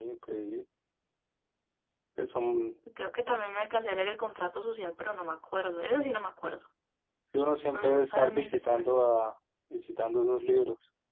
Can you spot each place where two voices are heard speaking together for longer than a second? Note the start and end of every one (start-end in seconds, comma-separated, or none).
7.7-9.1